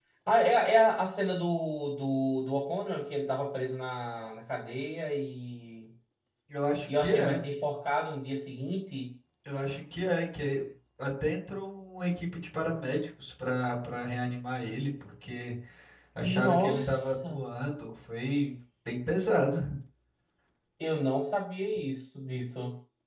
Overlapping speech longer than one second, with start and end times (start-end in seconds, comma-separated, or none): 16.2-17.4